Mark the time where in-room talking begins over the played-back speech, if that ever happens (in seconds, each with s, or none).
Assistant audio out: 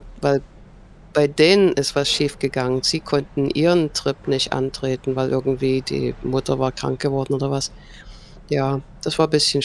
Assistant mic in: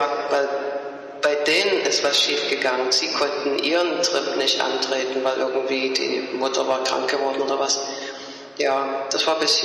none